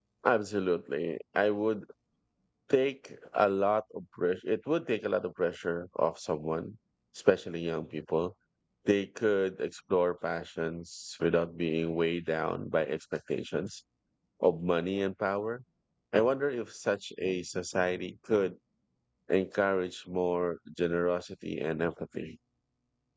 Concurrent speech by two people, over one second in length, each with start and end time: none

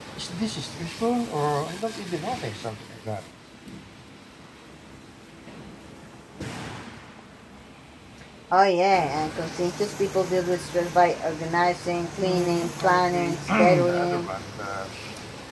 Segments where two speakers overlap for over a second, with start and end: 12.2-14.3

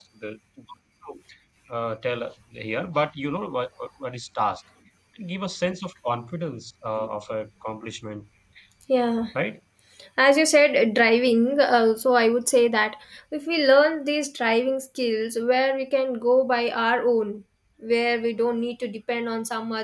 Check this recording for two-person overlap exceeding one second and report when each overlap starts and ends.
none

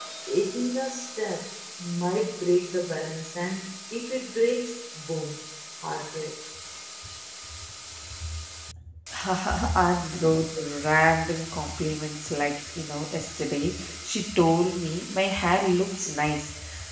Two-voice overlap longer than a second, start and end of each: none

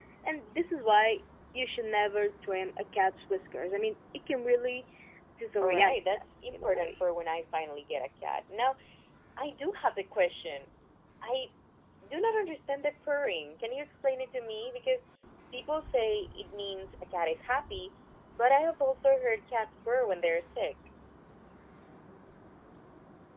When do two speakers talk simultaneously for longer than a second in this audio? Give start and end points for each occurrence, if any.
5.6-6.9

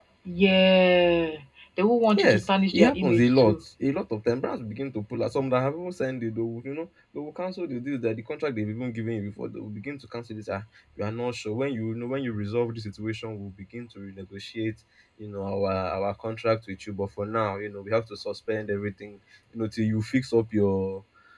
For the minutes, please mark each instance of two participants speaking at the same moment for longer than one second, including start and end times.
2.1-3.6

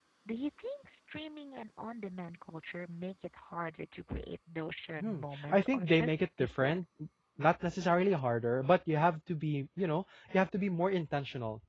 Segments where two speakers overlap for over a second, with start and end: 5.0-6.8

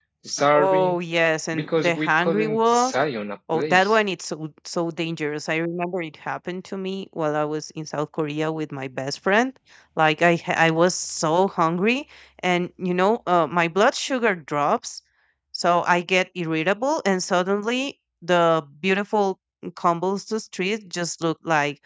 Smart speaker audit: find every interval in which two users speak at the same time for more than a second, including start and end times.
1.5-2.9

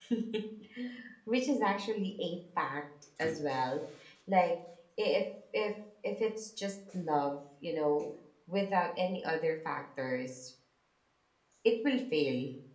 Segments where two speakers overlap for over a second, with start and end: none

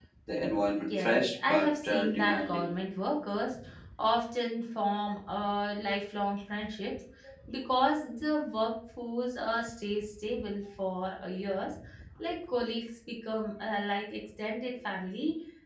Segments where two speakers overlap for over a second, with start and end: 0.9-2.7

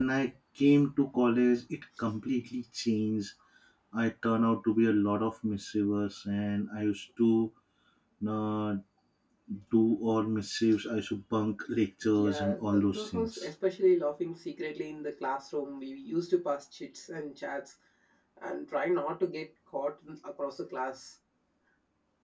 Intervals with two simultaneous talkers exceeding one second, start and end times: 12.1-13.5

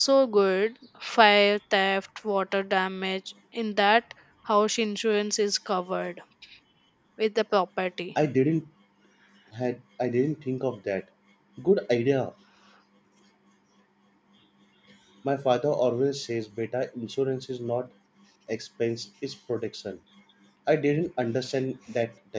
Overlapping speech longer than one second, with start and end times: none

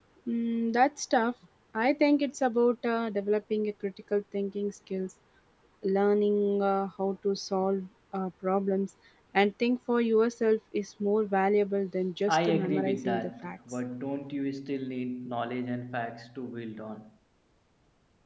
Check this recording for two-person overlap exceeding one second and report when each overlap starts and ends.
12.3-13.6

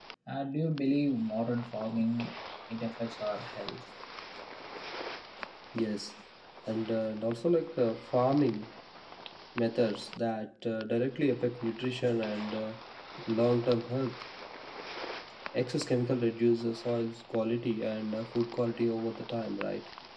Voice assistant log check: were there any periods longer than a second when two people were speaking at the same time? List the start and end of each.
none

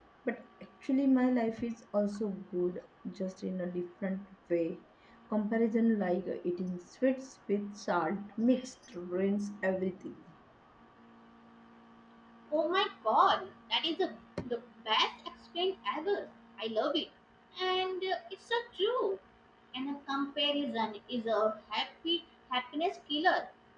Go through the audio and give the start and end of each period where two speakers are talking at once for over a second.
none

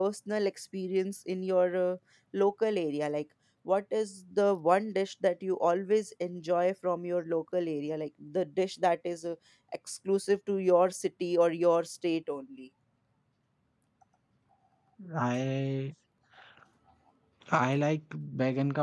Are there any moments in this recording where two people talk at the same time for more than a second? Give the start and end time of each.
none

